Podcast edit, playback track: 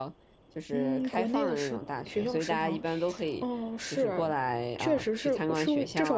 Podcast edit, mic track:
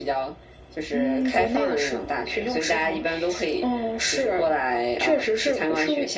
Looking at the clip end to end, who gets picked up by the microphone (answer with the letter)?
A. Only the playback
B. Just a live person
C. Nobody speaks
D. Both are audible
A